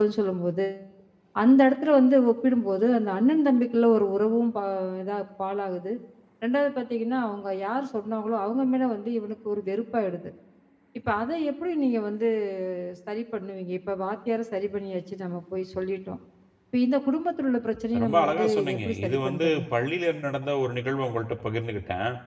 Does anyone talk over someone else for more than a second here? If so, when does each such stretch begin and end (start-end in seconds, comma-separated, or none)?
18.0-19.5